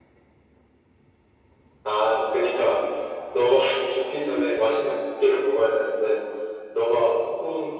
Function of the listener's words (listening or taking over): listening